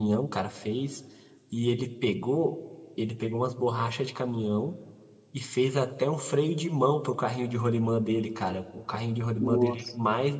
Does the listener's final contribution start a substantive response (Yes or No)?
No